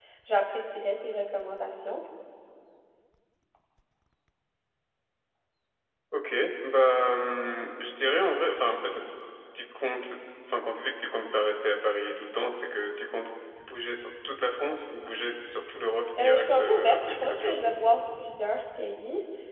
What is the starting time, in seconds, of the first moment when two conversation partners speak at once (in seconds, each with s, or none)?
16.2 s